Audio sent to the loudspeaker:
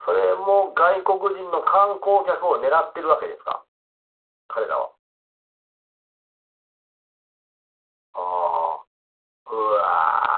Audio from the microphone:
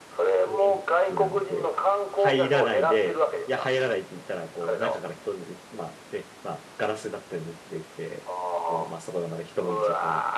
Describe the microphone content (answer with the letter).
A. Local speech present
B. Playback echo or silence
A